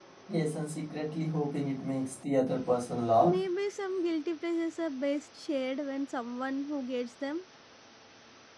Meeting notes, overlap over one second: none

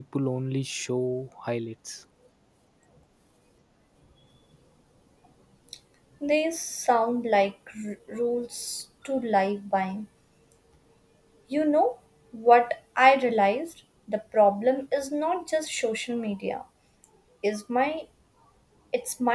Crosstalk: none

